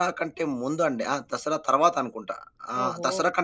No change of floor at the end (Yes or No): Yes